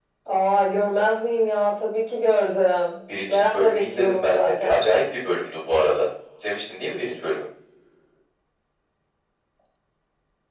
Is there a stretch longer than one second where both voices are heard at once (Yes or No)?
Yes